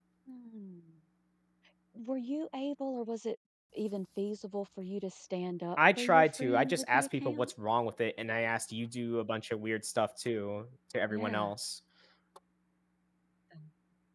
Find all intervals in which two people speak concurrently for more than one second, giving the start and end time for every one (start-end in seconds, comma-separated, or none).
6.0-7.5